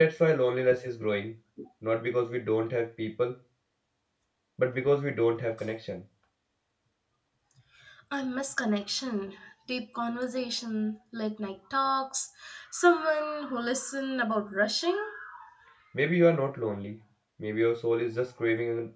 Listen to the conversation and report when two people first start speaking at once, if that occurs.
none

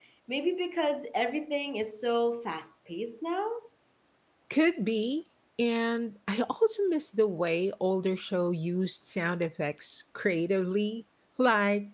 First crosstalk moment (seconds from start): none

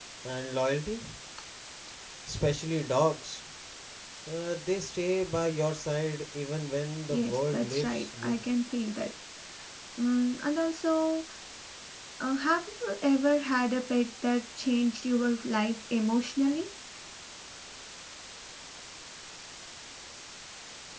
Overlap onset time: 7.1 s

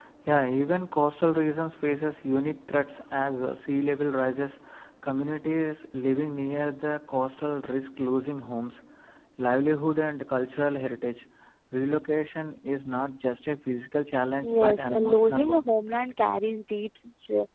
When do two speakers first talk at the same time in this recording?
14.4 s

